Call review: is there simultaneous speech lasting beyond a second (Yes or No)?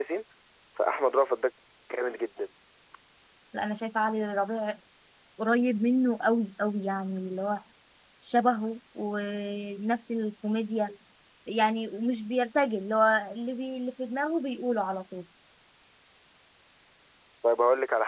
No